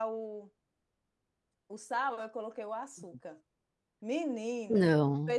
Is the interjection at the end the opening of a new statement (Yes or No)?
No